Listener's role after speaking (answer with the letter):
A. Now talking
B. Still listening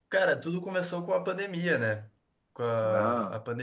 B